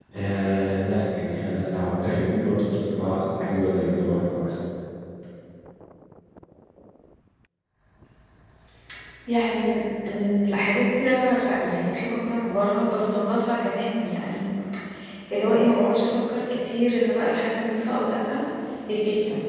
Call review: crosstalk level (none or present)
none